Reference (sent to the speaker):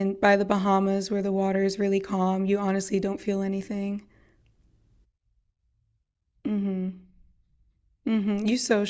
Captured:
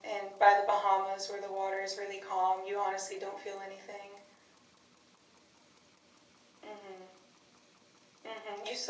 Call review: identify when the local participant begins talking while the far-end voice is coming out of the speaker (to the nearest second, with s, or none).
none